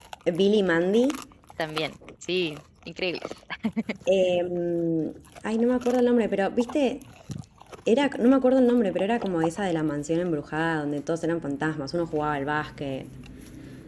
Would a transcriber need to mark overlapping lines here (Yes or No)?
No